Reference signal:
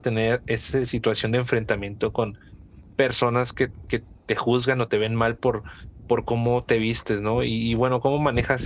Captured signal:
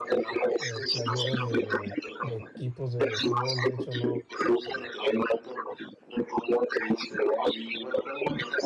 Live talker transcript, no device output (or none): eh, playeras de de equipos de fútbol. De hecho, no,